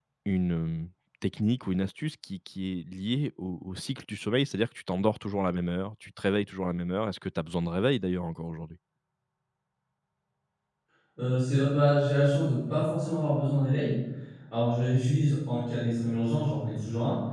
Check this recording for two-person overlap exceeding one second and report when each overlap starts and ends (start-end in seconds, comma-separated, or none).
none